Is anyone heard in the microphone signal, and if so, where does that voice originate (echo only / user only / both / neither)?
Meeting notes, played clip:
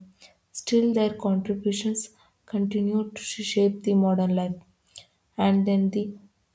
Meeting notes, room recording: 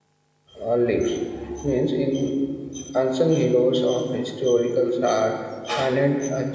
user only